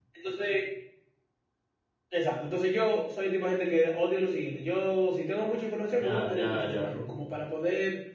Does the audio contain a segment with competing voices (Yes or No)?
Yes